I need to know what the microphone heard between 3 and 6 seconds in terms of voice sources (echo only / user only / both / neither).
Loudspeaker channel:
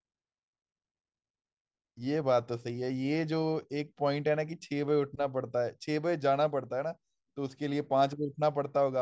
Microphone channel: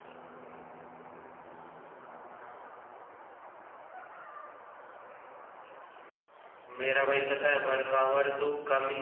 neither